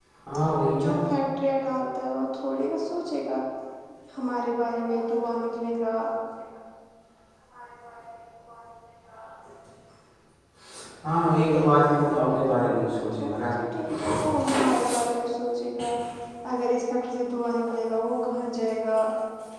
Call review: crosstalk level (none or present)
present